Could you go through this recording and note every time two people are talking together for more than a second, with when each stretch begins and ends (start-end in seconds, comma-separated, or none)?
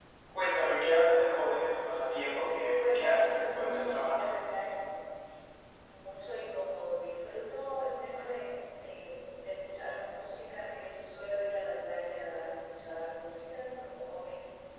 2.8-4.2